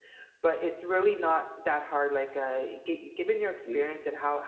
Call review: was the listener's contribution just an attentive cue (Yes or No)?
Yes